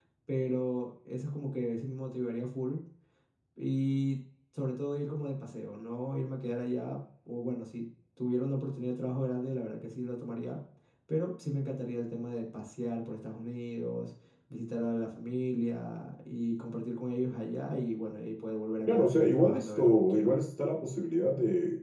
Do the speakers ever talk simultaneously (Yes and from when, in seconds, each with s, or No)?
Yes, from 18.9 s